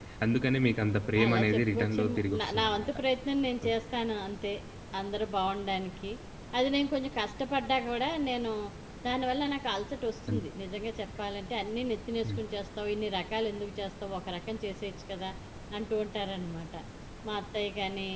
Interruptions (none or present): present